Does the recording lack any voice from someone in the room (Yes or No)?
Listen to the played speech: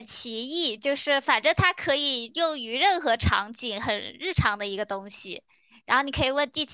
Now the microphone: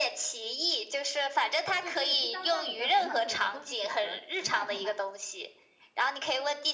No